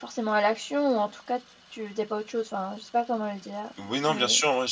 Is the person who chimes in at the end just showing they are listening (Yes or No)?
No